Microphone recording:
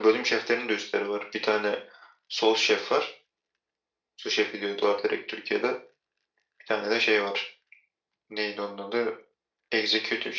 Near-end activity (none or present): none